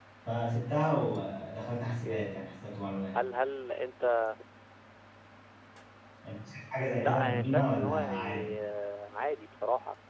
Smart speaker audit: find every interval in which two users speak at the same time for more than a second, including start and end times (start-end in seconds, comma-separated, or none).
6.9-8.5